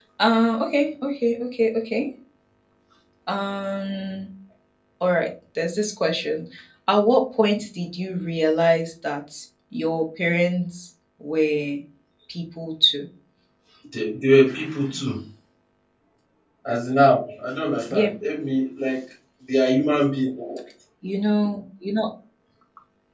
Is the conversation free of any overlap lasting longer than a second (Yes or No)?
Yes